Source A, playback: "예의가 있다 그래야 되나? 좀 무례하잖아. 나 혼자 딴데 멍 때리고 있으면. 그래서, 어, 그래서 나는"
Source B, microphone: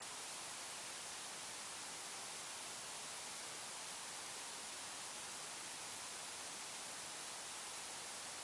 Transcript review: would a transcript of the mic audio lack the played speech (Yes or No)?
Yes